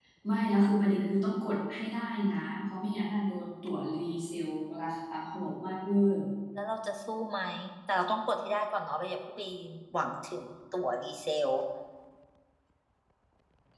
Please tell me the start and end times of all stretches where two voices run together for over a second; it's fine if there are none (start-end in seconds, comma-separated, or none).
none